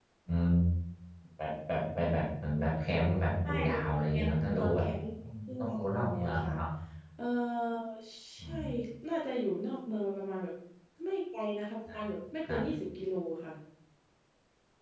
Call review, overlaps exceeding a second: present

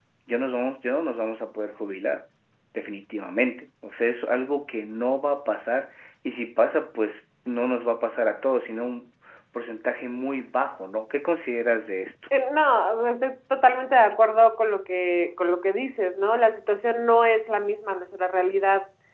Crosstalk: none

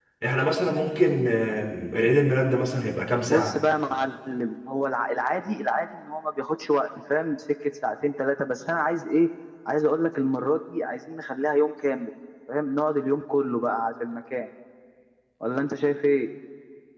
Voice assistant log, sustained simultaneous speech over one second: none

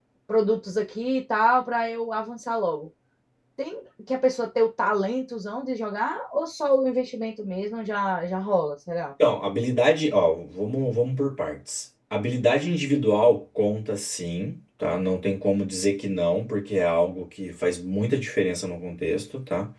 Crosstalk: none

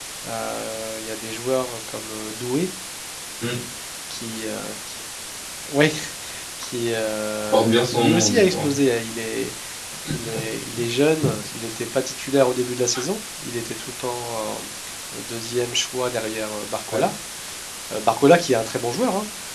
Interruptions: present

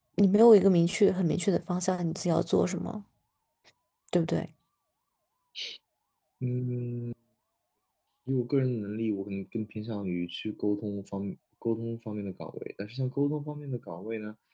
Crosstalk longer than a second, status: none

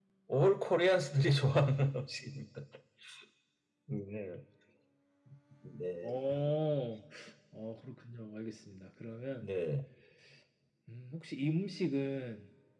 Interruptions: none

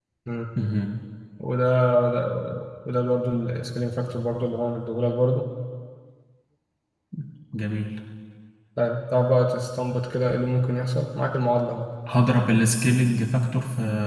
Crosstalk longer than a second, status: none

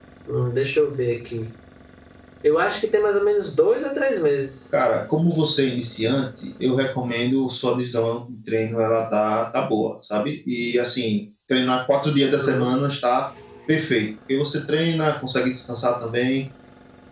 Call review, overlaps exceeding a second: none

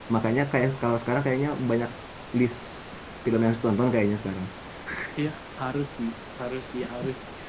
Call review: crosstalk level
none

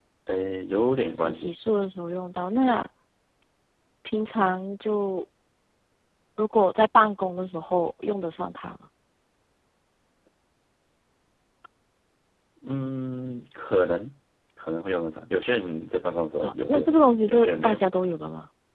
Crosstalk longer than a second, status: present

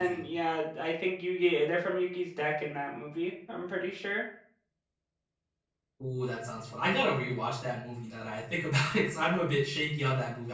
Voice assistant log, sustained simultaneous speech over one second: none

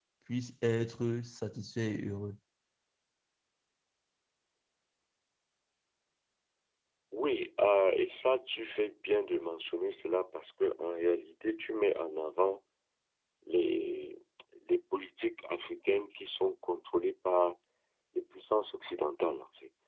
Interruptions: none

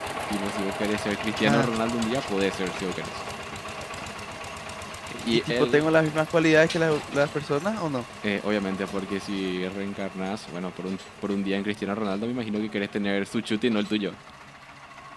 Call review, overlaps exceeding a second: none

